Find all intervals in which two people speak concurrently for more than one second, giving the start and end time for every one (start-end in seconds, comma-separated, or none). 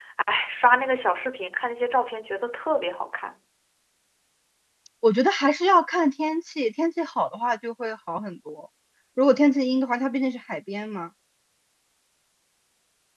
none